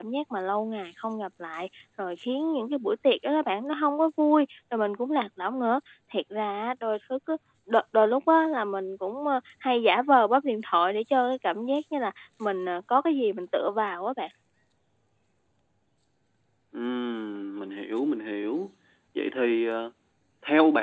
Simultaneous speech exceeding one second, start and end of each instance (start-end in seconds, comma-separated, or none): none